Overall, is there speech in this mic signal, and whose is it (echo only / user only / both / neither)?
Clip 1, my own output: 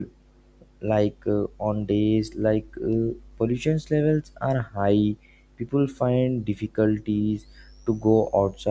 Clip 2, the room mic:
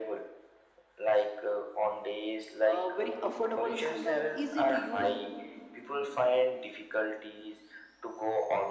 both